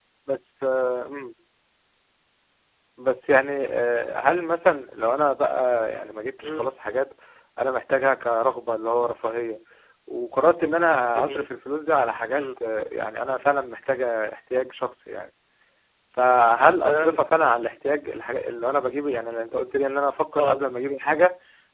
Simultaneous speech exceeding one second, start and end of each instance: none

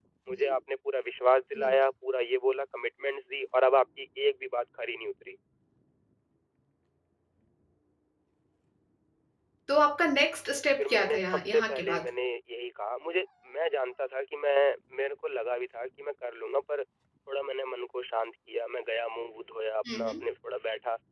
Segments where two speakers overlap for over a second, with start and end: 10.8-12.1

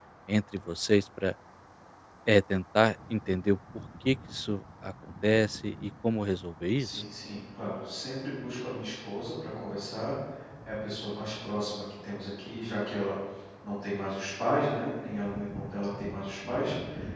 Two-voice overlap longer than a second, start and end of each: none

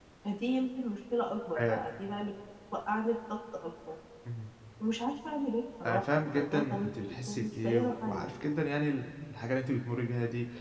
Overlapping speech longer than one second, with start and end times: 5.9-8.2

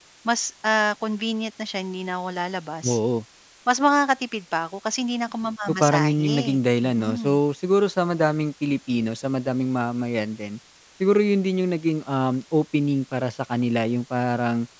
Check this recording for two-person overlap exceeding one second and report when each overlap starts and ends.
5.7-7.4

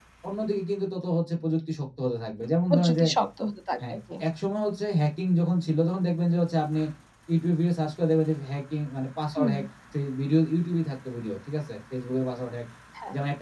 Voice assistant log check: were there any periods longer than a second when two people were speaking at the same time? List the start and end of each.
none

